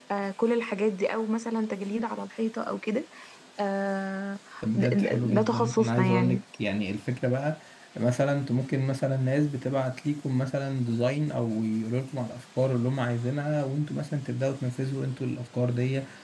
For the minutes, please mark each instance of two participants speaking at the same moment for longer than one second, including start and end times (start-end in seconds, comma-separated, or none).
4.8-6.4